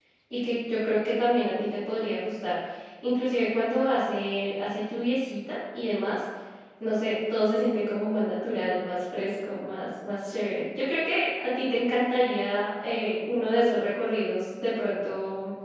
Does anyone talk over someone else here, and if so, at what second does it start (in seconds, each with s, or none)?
none